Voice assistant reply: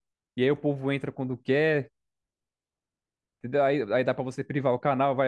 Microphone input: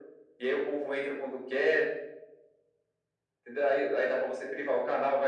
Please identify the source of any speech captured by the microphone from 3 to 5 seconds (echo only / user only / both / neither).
echo only